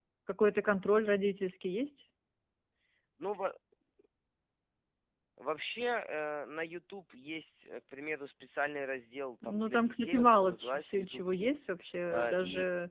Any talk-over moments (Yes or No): Yes